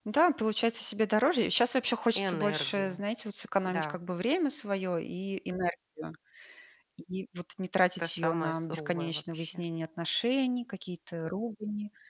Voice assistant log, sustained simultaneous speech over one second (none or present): present